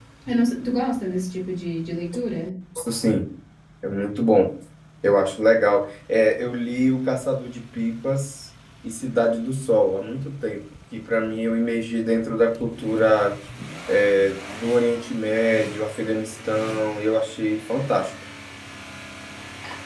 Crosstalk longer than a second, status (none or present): none